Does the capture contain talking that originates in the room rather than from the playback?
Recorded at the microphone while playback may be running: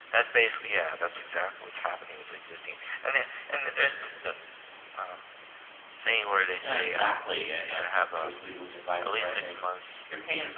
Yes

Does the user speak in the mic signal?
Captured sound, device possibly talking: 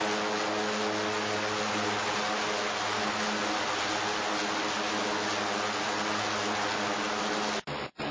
No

